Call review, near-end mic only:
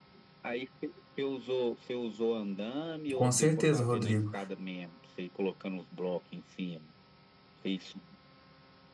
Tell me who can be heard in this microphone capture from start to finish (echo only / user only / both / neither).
both